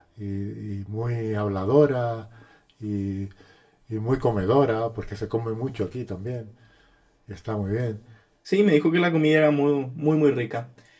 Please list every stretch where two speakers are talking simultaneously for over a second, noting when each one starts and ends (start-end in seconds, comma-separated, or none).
none